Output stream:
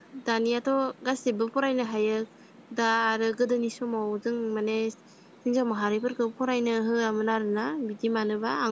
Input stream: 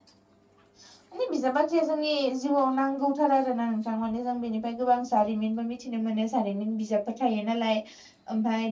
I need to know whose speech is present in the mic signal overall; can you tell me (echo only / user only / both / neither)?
user only